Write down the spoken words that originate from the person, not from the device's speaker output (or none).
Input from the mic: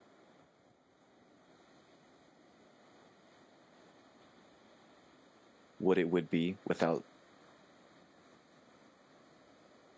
what it would be, without,